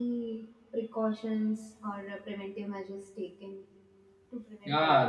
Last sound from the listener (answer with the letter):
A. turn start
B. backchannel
A